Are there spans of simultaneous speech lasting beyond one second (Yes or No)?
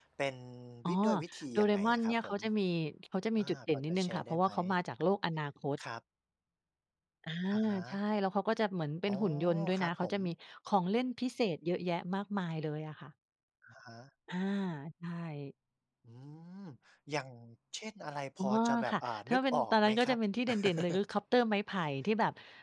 Yes